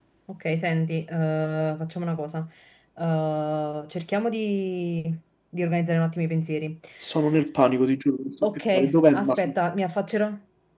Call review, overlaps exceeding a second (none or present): none